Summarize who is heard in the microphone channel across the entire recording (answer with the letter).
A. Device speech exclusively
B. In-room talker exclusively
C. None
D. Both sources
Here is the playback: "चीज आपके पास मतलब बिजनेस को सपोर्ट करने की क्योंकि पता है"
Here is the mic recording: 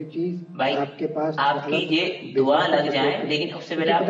D